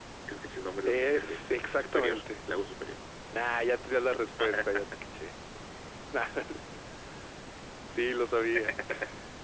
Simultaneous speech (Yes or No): Yes